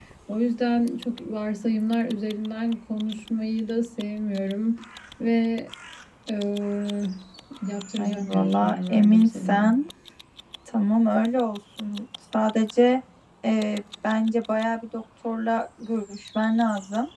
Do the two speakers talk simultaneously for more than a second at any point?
Yes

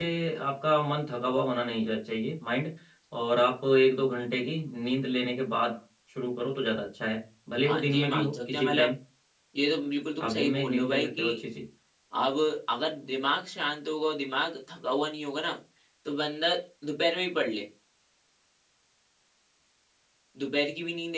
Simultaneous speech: Yes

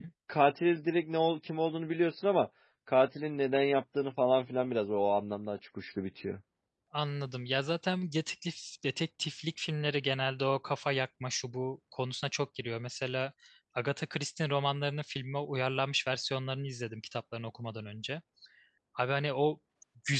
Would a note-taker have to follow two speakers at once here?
No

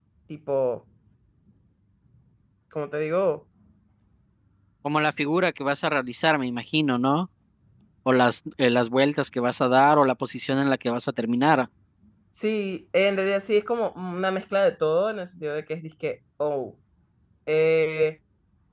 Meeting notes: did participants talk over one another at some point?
No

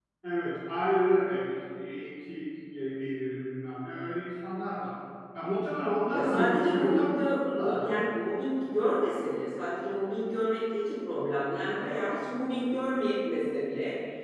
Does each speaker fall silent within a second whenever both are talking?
No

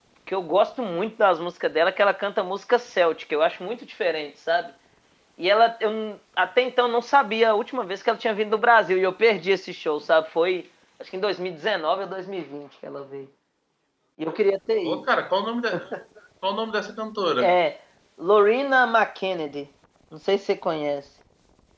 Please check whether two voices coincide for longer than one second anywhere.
No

